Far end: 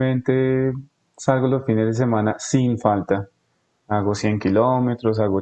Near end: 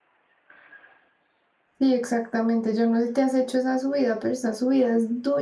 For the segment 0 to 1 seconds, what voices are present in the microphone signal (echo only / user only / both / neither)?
neither